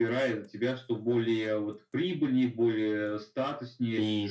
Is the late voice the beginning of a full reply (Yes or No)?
Yes